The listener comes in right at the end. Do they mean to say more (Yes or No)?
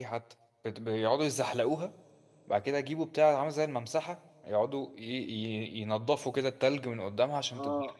Yes